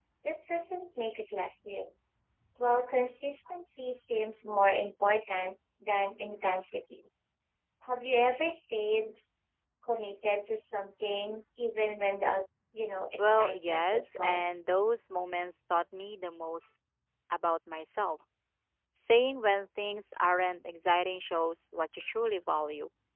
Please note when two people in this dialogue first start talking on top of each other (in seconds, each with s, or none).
13.2 s